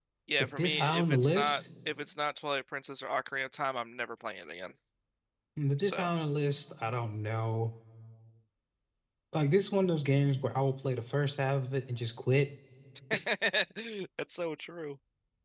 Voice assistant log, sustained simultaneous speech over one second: present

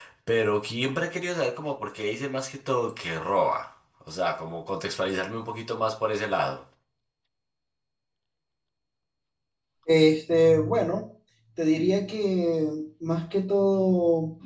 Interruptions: none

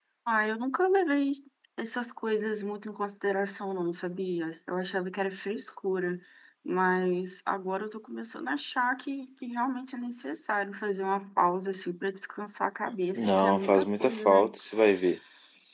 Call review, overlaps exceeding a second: present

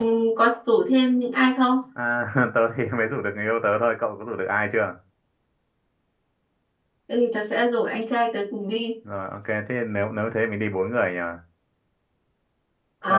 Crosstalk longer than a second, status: none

